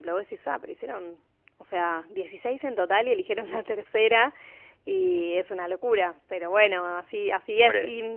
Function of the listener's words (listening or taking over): listening